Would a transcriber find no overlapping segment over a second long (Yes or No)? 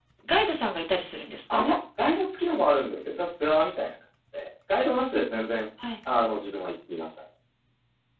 Yes